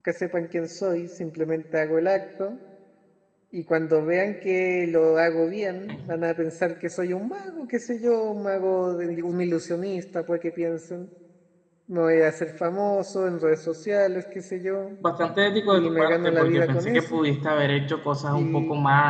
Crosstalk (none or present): present